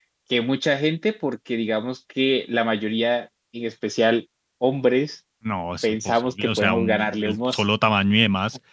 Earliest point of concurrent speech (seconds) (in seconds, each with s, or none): 5.8 s